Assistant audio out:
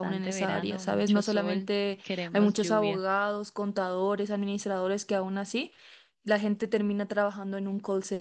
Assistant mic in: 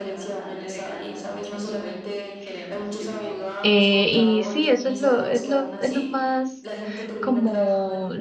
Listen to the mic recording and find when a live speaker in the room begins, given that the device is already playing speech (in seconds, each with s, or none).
3.6 s